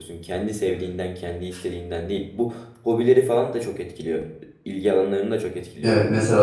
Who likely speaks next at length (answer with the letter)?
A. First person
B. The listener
B